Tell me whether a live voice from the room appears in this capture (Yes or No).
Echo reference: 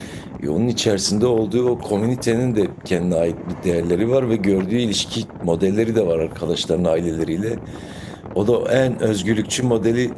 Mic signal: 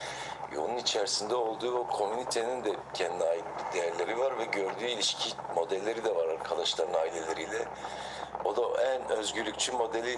No